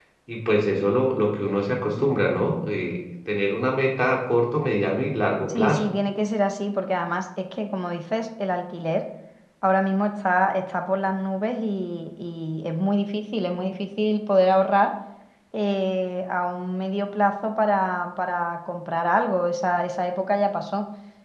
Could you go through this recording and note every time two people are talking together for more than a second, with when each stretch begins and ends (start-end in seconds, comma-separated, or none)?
none